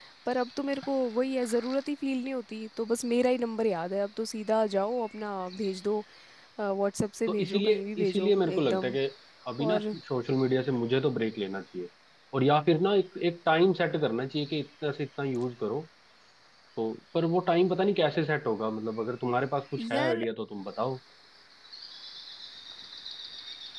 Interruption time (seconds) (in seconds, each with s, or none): 7.3 s